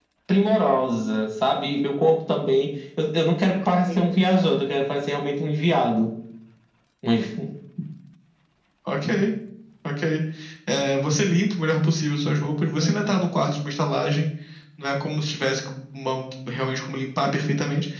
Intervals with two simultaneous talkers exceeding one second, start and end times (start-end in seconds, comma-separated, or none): none